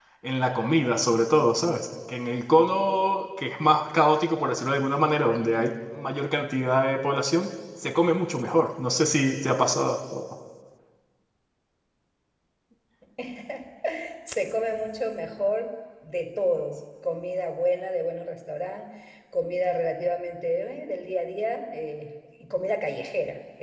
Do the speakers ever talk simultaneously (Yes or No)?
No